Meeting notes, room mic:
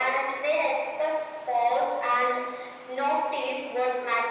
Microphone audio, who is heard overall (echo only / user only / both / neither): echo only